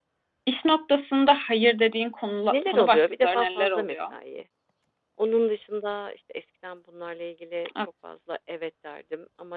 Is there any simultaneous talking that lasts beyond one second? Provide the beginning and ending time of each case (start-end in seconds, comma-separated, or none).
2.5-4.0